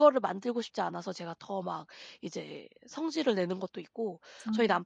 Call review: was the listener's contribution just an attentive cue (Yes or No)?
Yes